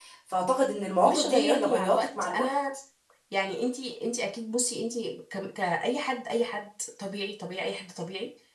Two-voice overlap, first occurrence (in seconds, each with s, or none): 1.0 s